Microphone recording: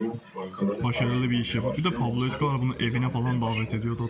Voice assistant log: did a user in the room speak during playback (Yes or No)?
Yes